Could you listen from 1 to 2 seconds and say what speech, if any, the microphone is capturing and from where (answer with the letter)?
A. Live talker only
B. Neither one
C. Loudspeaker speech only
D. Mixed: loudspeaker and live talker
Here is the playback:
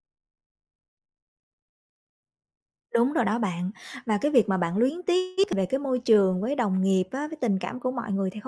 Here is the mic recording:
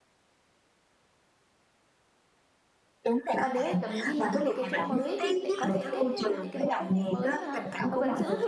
B